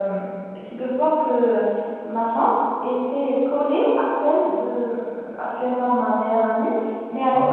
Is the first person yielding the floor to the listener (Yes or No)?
No